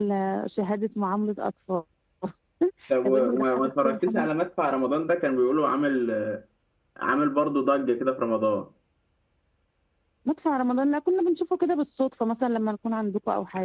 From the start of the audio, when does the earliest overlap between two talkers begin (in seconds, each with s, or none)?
3.0 s